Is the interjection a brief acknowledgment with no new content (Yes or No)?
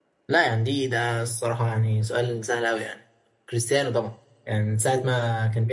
Yes